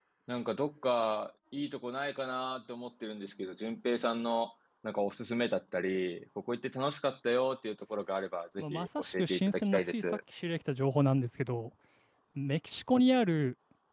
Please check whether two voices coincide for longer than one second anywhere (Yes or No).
Yes